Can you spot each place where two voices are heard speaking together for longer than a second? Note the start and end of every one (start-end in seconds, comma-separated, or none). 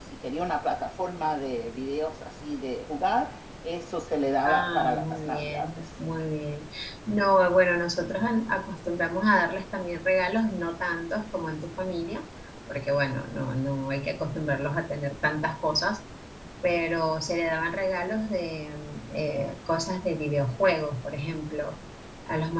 4.5-5.8